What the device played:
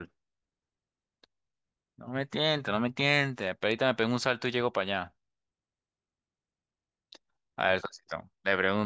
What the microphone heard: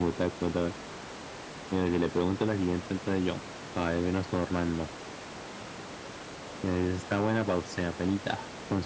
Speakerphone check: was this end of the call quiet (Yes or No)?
No